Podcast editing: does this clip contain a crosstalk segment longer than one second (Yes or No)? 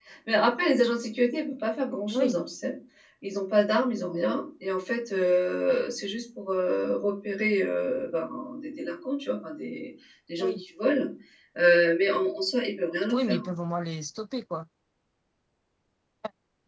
No